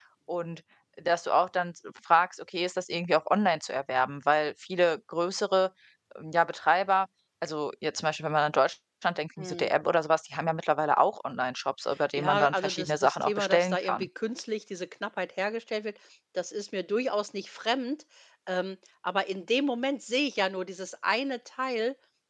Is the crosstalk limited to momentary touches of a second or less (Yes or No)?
No